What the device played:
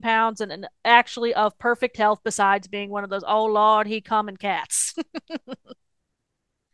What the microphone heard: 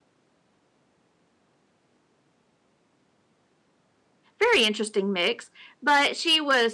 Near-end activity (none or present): present